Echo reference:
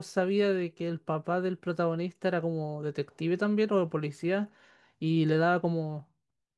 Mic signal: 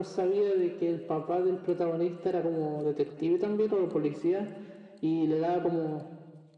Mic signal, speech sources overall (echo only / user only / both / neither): echo only